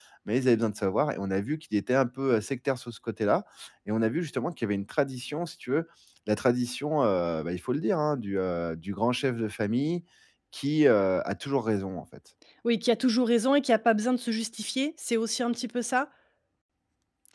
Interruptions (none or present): none